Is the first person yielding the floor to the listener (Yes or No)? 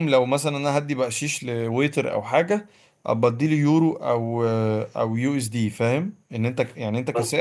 No